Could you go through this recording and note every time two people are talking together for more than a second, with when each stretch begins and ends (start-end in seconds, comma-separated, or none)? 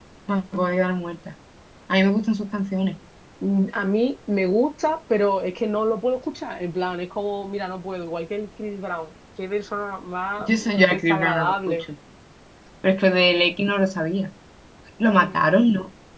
10.4-11.8